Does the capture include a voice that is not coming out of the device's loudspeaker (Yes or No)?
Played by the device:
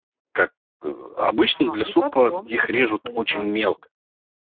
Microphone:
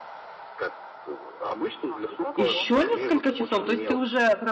Yes